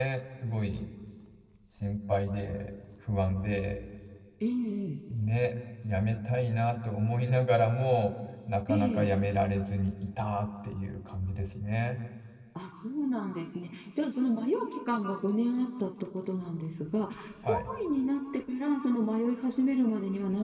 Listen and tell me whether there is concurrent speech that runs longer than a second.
No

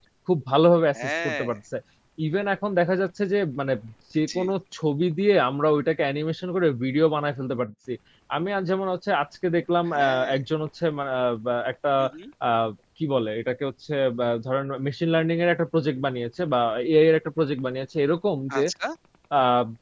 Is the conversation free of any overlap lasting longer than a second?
Yes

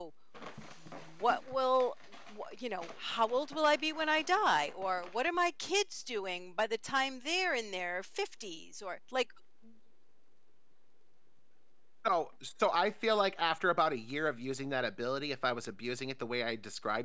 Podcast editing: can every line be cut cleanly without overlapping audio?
Yes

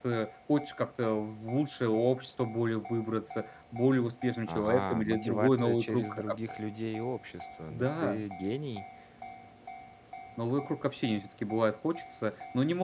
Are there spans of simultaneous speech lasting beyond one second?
Yes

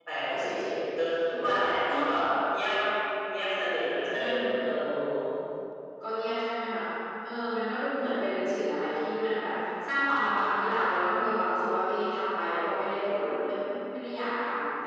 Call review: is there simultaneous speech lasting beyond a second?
No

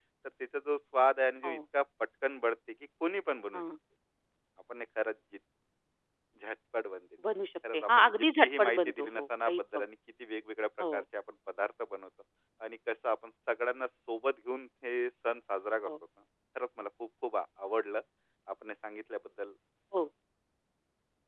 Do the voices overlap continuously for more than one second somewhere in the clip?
Yes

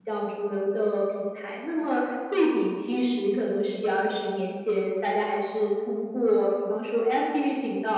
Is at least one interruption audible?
No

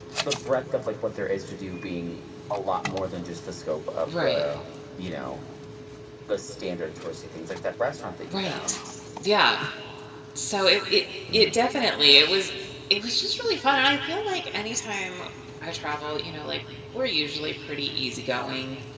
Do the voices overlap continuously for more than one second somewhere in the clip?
No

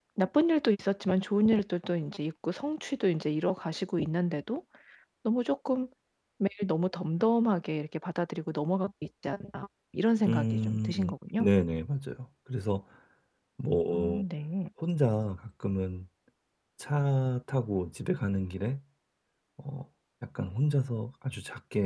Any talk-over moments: Yes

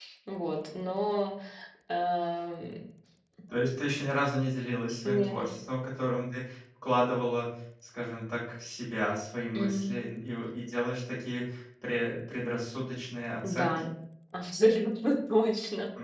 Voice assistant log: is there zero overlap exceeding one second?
Yes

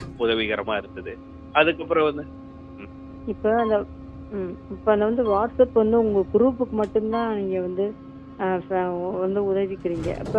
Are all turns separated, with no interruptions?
Yes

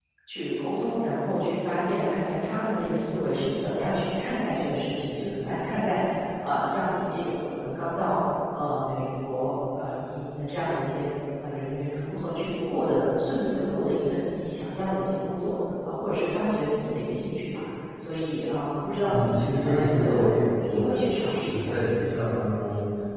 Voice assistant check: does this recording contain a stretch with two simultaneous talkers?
Yes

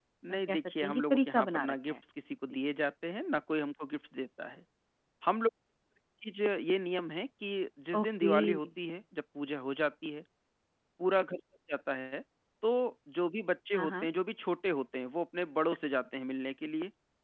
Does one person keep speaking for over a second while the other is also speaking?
Yes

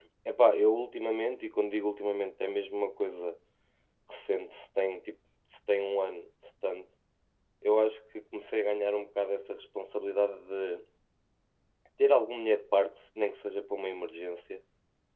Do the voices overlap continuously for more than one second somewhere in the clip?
No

